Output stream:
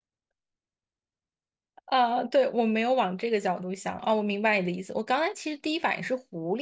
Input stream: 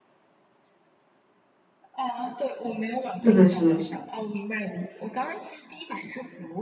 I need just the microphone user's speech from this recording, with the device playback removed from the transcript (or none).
是的，是的，是的